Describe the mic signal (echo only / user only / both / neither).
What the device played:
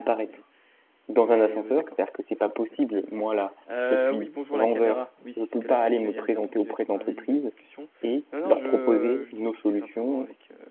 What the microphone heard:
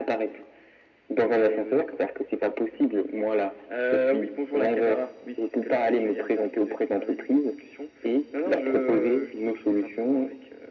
echo only